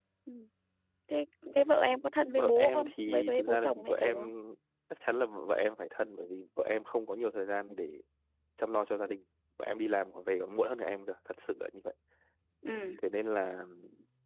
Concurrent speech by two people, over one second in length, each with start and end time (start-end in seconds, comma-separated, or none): 2.4-4.2